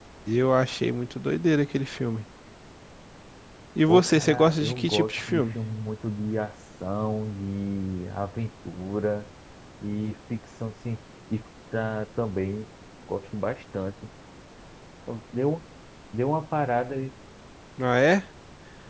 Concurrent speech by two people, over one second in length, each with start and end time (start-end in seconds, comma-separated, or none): 3.9-5.6